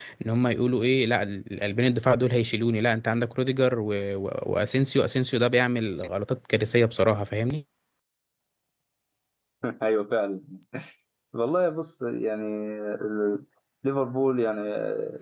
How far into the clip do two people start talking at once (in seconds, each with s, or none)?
none